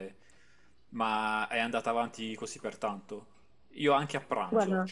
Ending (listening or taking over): listening